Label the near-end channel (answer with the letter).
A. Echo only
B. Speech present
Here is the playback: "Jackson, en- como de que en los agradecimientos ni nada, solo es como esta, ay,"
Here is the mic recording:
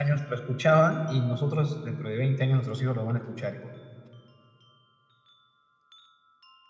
B